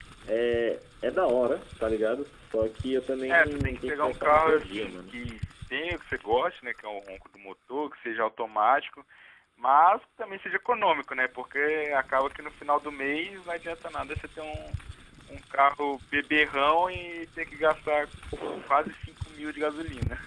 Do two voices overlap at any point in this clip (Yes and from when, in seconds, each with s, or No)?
Yes, from 3.3 s